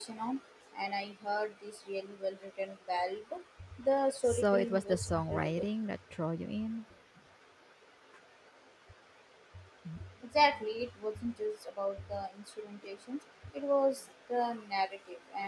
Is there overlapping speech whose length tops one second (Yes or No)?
Yes